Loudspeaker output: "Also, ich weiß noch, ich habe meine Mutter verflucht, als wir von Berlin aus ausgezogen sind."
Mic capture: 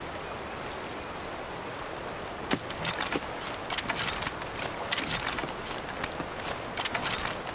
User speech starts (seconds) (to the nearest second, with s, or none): none